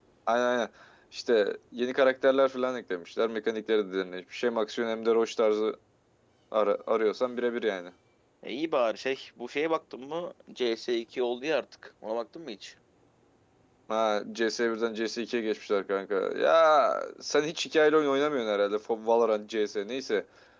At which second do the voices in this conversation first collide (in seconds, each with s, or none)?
none